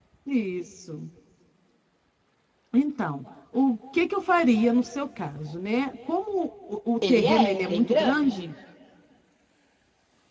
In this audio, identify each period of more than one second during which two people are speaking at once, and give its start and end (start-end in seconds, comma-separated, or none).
7.1-8.5